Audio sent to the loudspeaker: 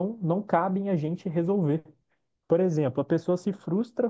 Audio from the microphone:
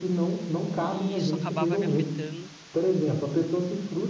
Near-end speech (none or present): present